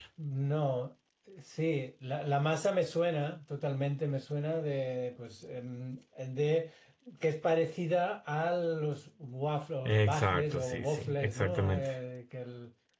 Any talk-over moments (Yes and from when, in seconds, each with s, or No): Yes, from 9.8 s